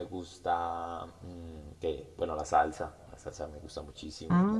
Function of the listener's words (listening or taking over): listening